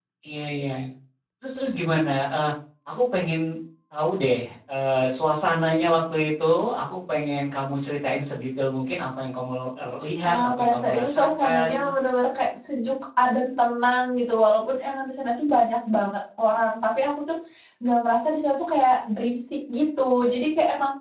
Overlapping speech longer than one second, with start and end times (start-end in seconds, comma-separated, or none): 10.2-11.9